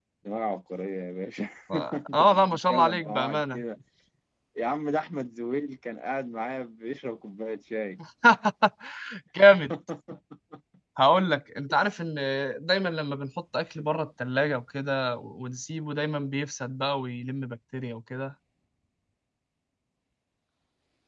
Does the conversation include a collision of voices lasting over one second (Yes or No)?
Yes